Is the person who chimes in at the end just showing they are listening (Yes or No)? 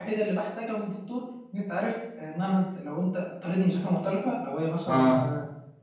Yes